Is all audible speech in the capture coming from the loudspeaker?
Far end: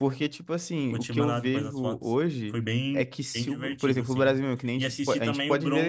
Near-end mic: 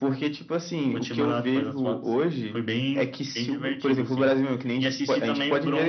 Yes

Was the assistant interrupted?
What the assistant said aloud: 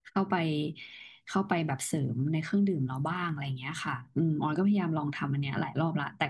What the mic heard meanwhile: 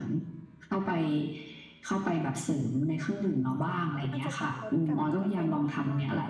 Yes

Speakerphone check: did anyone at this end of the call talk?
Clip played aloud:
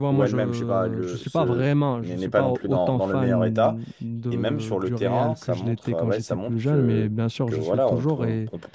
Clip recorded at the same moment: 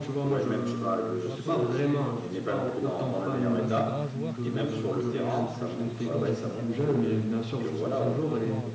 Yes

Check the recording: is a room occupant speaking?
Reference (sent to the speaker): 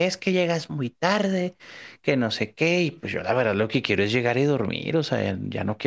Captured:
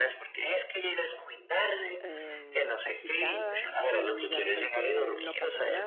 Yes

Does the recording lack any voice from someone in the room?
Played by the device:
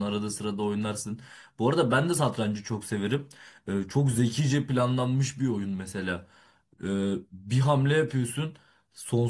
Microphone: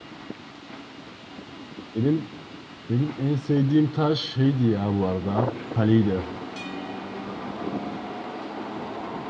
No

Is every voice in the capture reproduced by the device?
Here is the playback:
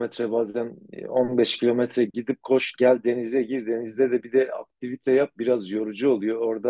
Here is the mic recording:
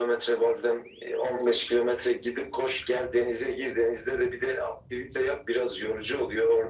Yes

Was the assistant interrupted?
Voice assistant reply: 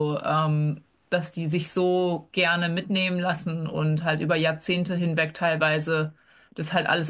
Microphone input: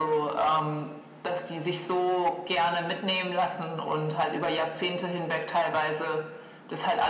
No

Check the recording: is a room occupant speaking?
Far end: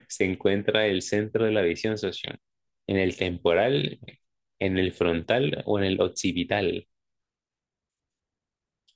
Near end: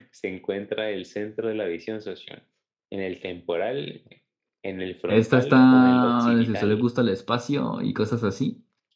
Yes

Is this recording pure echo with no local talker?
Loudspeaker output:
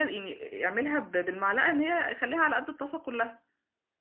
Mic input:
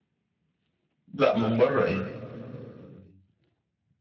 No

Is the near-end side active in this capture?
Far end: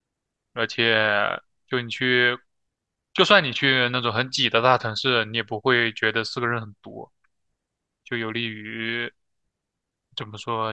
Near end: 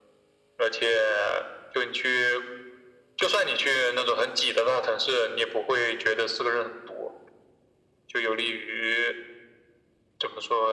No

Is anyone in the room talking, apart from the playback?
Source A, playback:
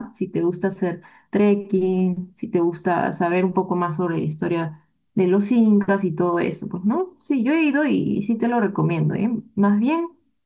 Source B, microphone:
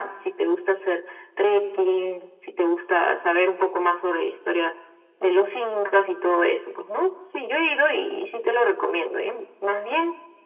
No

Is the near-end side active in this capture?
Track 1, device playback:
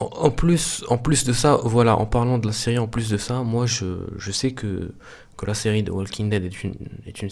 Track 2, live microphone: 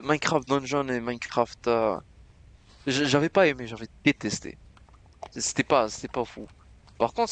Yes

